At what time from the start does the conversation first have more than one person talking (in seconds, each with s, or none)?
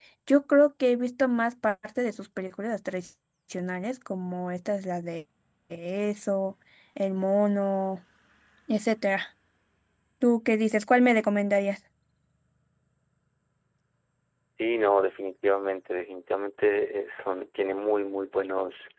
none